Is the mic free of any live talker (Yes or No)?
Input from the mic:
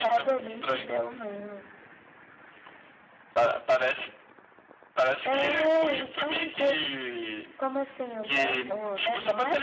Yes